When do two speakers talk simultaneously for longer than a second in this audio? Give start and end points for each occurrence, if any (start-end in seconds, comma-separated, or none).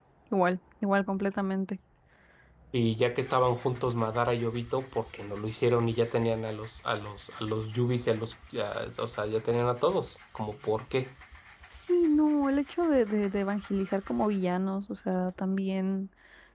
none